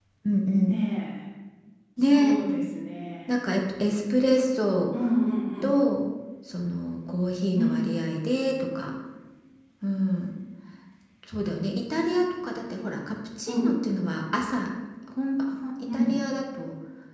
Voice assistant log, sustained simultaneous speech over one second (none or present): none